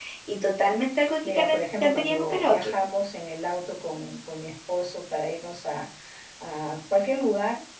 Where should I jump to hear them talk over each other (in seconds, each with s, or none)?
1.2 s